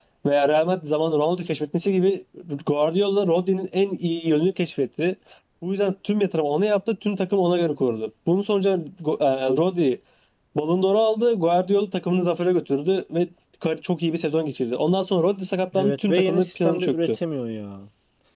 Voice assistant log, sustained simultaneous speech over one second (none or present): present